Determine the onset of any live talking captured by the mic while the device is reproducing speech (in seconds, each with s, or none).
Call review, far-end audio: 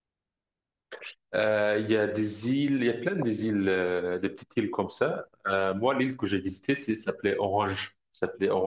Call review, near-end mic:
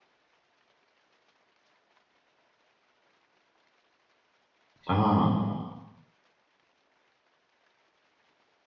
4.8 s